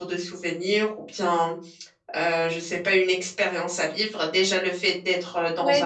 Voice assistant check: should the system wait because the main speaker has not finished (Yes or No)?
No